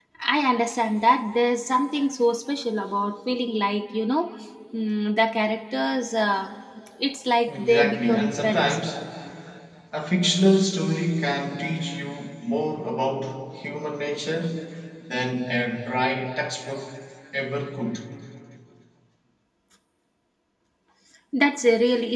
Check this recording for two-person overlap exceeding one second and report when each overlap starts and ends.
7.5-8.8

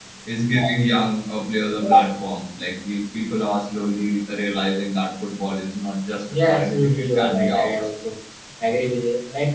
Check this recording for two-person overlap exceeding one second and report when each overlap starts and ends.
6.4-7.8

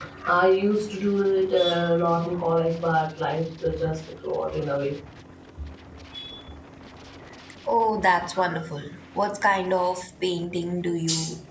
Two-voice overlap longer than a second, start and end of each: none

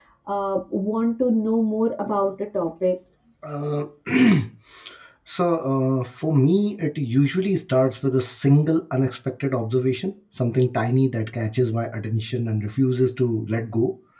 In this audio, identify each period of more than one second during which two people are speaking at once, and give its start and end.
none

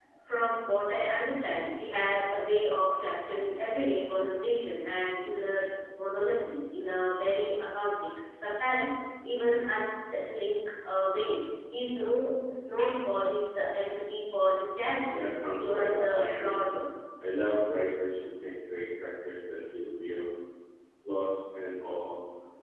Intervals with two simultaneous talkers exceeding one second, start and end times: 15.1-16.6

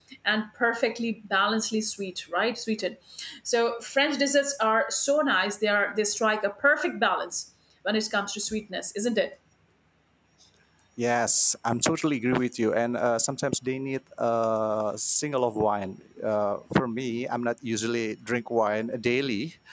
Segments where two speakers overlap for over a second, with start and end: none

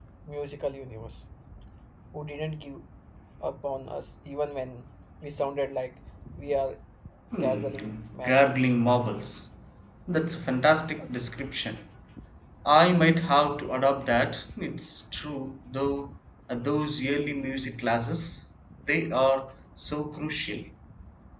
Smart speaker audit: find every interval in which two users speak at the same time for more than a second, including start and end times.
7.4-8.7

